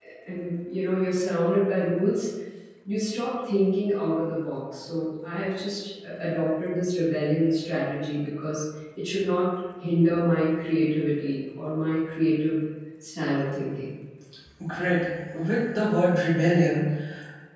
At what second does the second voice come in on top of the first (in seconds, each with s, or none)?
none